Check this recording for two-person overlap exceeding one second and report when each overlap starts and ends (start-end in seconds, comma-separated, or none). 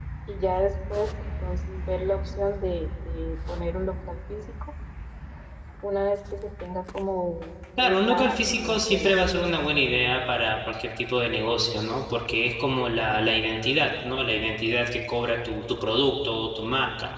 7.8-9.1